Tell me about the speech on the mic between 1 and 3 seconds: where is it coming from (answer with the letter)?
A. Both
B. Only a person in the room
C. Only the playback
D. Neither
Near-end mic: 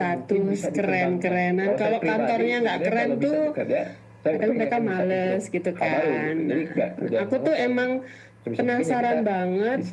C